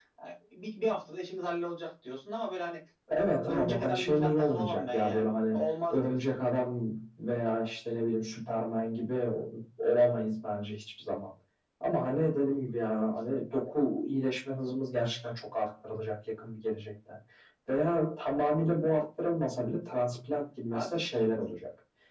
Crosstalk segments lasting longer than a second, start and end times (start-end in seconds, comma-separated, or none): 3.4-6.2